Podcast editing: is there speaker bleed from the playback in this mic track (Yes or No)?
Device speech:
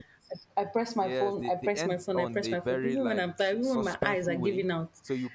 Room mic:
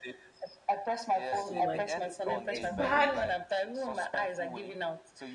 Yes